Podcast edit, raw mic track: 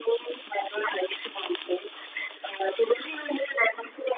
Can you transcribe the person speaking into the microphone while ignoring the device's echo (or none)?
none